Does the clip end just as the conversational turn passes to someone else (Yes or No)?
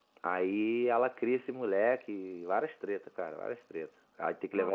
No